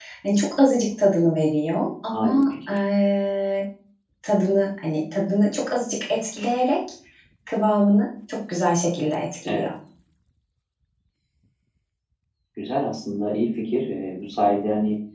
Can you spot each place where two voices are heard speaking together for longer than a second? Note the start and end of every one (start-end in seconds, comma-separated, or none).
none